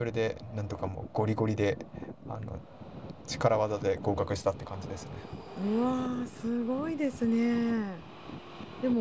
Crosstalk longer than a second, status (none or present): none